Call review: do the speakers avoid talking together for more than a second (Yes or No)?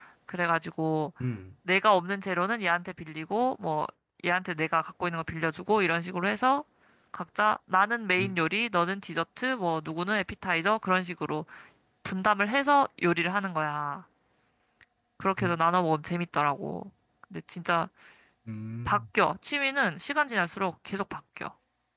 Yes